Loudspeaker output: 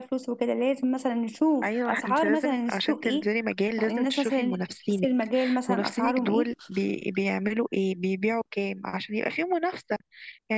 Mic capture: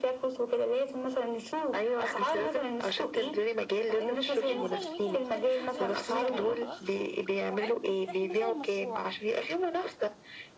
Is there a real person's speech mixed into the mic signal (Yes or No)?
Yes